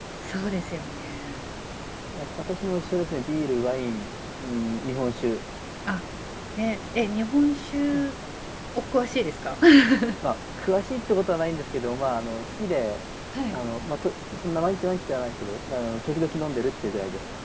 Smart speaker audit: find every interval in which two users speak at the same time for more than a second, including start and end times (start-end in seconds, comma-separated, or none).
none